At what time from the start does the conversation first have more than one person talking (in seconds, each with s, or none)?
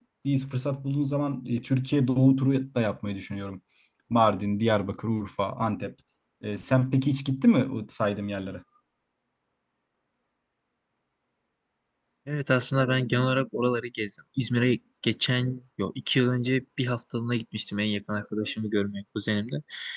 none